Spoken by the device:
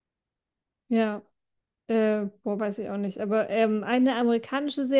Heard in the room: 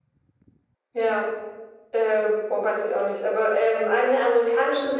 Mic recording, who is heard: echo only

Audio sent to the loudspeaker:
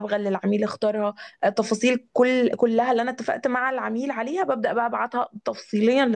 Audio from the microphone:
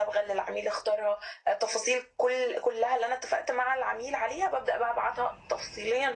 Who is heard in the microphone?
echo only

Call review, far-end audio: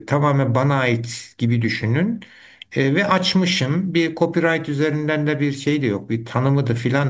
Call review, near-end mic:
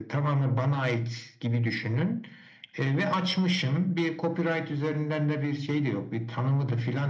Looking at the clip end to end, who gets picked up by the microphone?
echo only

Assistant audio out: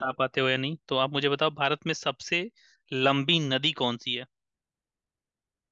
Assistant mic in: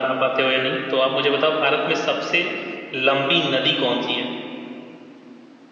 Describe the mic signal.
echo only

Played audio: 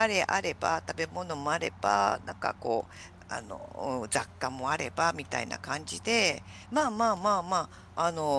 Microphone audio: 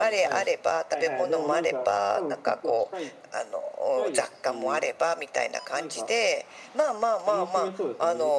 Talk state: both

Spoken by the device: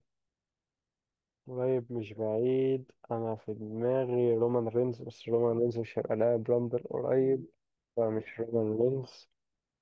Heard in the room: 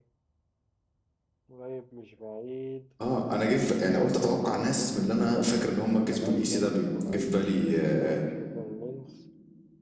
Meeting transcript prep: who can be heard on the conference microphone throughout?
both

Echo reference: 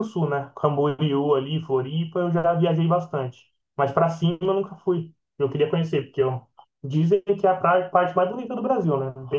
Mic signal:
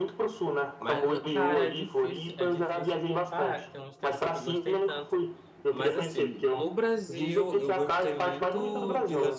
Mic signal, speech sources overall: both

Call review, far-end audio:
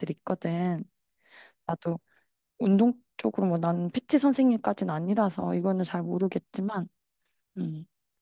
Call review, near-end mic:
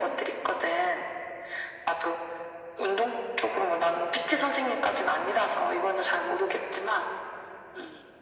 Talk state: echo only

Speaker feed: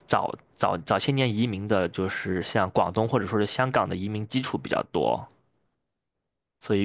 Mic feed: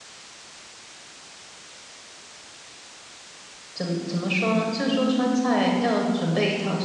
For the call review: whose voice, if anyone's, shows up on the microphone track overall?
user only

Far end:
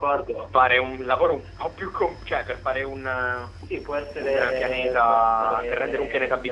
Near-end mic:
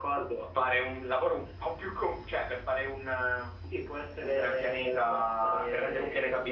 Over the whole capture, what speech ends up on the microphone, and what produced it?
echo only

